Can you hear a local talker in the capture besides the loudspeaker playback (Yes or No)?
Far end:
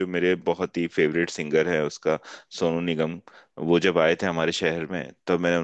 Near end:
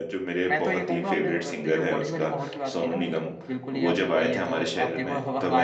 Yes